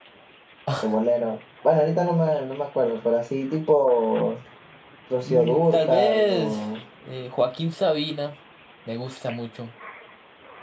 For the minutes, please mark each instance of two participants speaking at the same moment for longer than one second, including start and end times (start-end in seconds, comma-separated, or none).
5.2-6.6